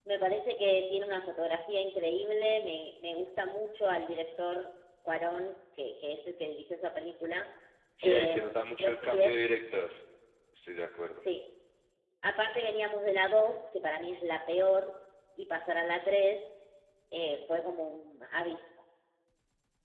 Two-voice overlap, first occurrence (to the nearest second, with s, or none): 8 s